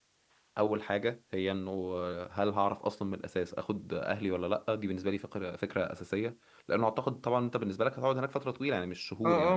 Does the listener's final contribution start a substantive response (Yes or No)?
Yes